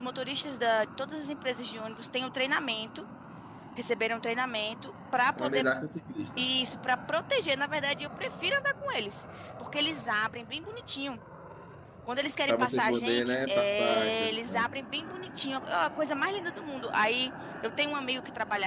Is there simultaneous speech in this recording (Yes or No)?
Yes